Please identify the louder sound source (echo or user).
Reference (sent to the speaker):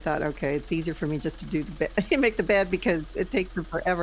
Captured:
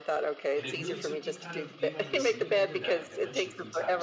echo